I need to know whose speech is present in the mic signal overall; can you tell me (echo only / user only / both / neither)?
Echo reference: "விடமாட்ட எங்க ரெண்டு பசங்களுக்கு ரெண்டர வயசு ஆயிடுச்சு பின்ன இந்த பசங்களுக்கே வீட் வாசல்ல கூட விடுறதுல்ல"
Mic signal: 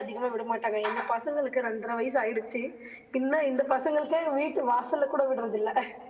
echo only